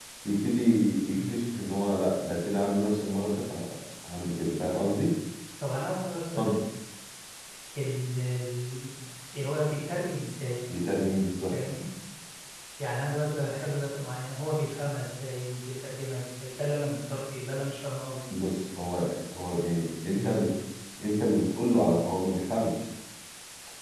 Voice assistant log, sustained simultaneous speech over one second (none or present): none